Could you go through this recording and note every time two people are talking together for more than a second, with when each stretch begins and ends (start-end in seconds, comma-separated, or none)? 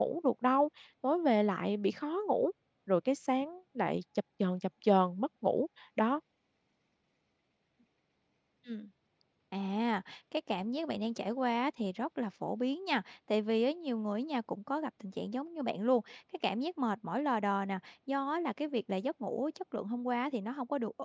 none